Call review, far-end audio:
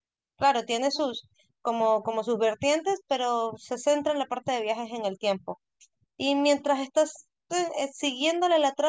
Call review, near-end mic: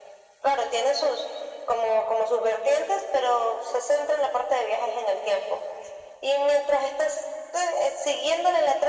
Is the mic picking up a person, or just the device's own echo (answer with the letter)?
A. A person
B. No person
B